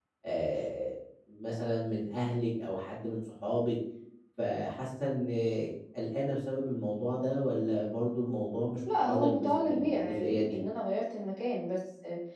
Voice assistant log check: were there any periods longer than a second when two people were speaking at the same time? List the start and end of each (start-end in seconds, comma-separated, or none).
9.0-10.6